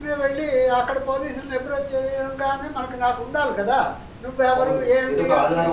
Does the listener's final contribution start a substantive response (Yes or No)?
Yes